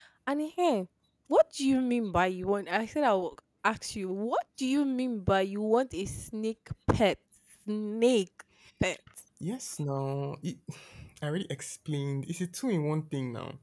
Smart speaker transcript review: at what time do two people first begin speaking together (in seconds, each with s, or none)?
none